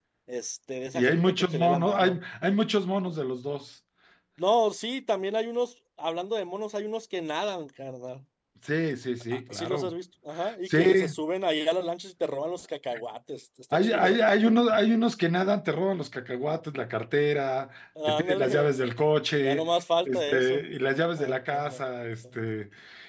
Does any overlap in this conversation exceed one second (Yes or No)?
Yes